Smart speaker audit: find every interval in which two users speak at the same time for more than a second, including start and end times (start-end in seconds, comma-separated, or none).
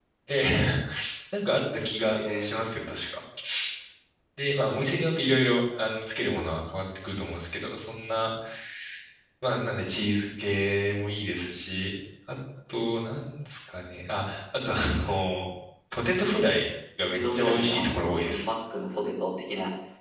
17.0-18.4